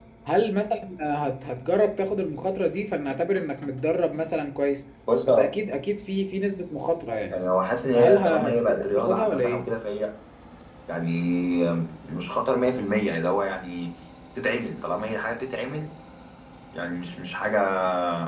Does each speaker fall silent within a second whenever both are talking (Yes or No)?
No